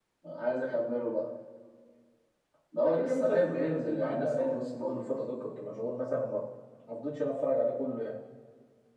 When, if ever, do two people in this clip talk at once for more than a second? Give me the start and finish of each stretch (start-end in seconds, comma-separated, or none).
2.8-5.0